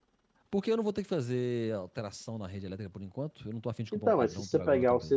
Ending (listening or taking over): taking over